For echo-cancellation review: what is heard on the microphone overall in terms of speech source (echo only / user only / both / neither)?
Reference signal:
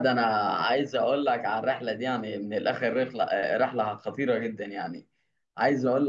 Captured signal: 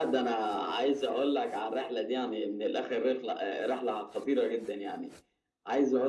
echo only